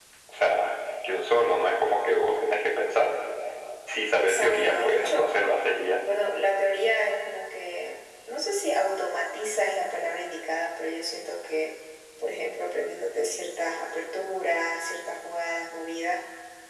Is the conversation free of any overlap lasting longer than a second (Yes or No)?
No